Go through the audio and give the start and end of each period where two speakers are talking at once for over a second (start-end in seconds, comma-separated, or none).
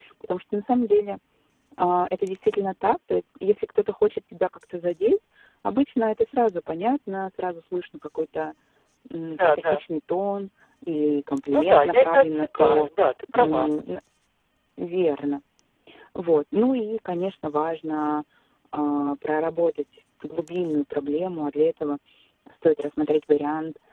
11.5-12.9